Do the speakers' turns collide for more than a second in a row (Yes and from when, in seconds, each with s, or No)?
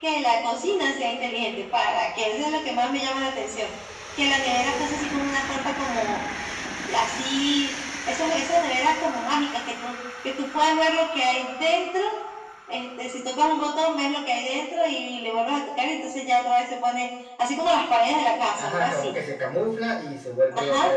No